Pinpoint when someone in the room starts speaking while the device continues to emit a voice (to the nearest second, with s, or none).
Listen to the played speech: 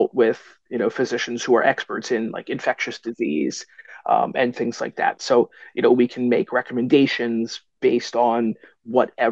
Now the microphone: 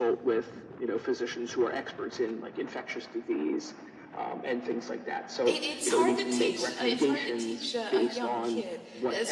5 s